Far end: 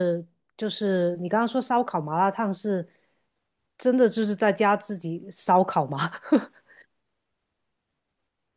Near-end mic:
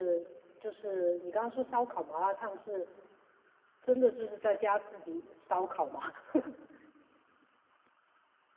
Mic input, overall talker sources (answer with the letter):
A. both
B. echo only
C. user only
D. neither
B